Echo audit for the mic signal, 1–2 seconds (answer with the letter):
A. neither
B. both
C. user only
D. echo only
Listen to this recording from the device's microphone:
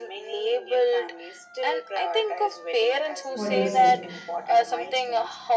D